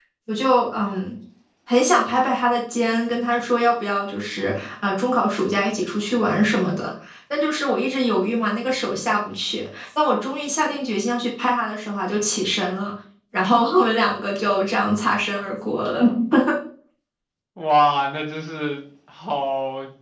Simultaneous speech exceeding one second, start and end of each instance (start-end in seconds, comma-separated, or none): none